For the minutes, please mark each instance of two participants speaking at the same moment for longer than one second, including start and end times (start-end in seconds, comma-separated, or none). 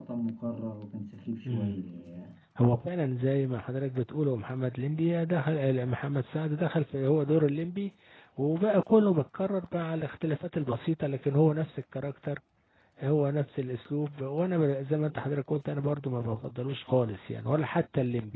none